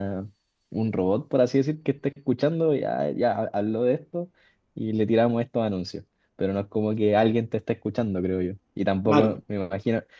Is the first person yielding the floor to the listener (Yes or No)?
No